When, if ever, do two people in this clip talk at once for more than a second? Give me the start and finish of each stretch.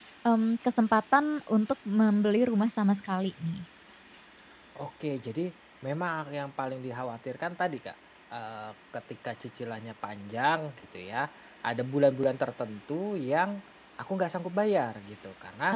none

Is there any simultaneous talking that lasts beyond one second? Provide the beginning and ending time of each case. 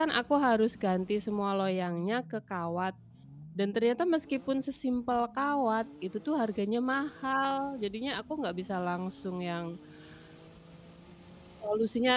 none

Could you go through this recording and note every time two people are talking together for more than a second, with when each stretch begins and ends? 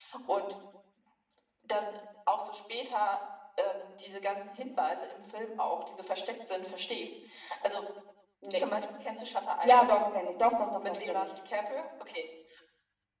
none

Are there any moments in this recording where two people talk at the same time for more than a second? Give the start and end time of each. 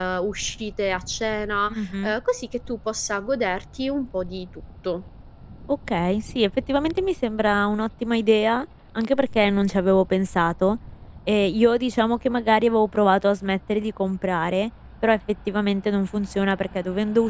none

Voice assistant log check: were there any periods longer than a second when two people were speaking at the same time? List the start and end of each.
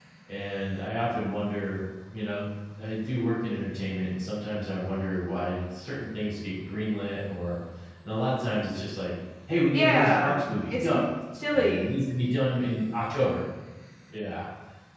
9.7-11.1

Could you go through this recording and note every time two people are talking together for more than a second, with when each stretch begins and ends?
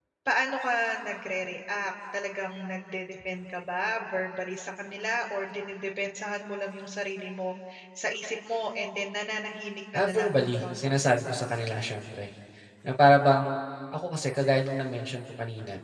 9.9-11.3

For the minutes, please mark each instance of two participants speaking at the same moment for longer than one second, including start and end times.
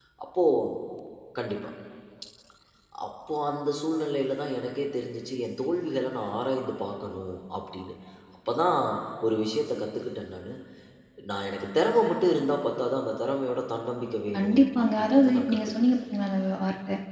14.3-15.9

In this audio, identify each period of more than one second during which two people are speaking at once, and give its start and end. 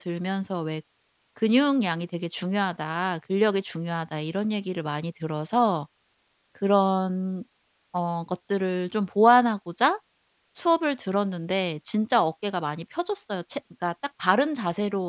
none

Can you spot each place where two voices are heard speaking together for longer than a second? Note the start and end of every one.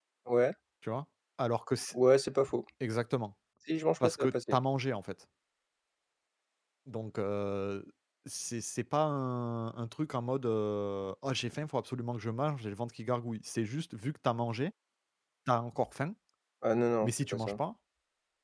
none

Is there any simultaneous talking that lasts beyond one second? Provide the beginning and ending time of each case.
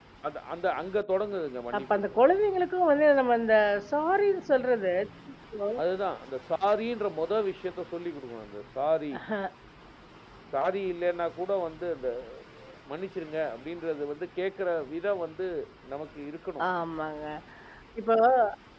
none

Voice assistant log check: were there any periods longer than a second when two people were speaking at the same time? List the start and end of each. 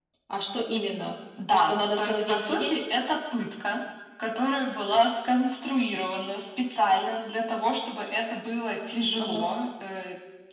1.5-2.7

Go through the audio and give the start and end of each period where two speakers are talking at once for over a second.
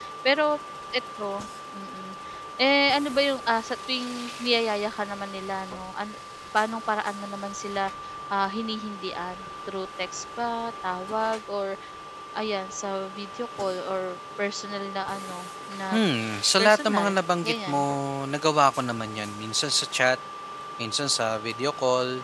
16.6-17.8

